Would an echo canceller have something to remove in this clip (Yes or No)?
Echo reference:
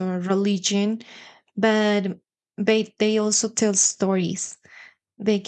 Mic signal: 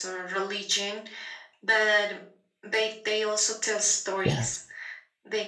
Yes